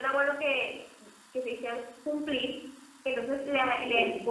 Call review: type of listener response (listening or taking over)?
listening